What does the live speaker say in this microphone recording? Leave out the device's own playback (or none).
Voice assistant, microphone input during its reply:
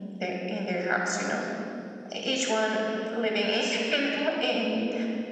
none